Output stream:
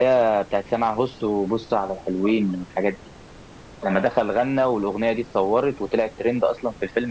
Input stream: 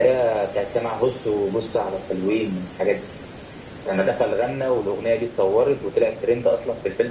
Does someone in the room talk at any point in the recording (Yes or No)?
No